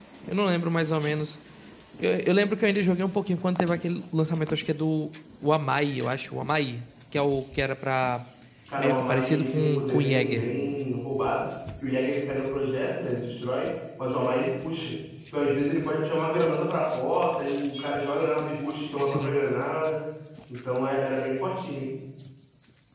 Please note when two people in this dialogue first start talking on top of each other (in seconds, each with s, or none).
8.8 s